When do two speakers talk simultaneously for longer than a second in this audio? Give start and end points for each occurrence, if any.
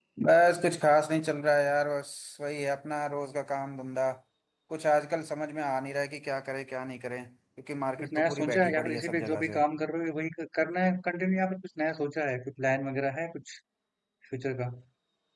8.0-9.6

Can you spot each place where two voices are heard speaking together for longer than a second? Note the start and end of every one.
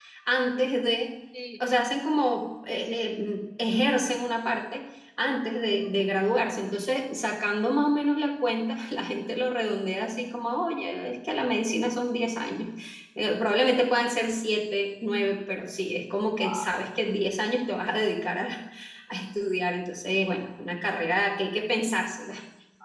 none

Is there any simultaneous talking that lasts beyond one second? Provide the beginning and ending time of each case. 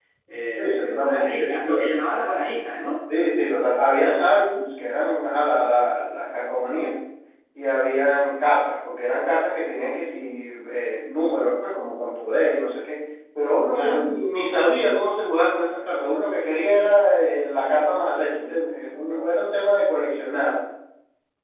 0.6-1.8

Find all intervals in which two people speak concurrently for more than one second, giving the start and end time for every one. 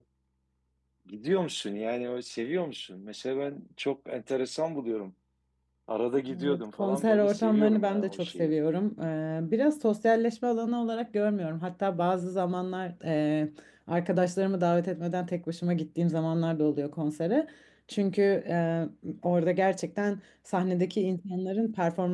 6.4-8.5

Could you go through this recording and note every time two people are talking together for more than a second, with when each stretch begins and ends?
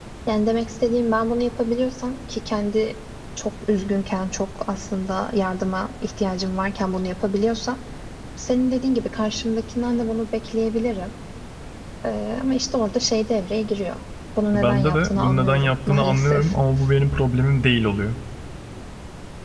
14.6-16.6

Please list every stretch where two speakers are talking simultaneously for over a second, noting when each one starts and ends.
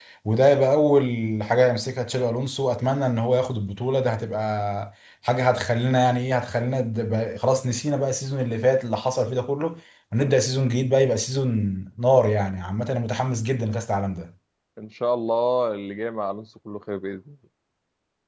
none

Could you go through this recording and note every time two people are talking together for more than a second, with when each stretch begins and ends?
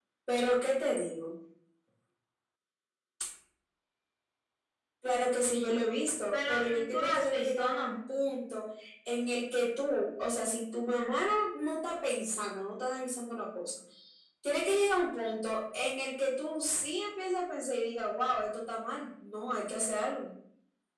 6.3-7.9

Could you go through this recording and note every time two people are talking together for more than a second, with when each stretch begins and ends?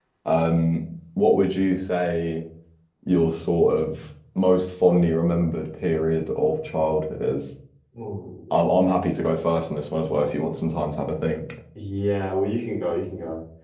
none

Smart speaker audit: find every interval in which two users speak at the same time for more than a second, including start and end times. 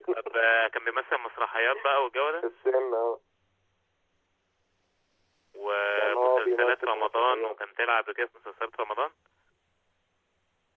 6.0-7.5

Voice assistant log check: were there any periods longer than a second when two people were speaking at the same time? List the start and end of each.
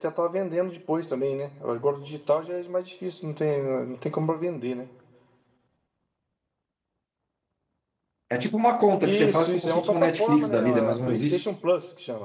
9.0-11.4

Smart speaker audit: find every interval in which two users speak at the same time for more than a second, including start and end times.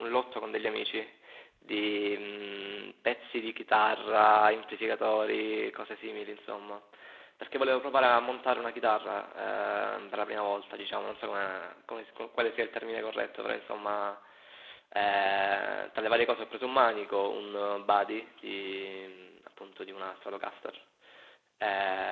none

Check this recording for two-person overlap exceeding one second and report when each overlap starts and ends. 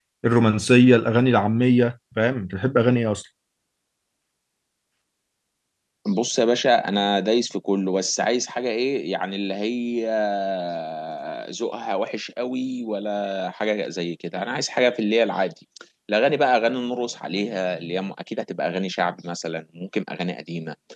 none

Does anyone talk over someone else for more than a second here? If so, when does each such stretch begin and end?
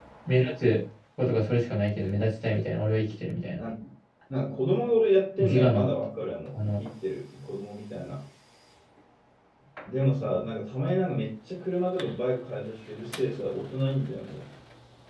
none

